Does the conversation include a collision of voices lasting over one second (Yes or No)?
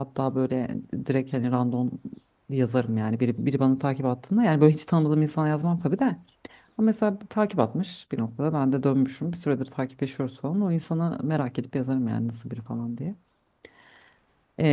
No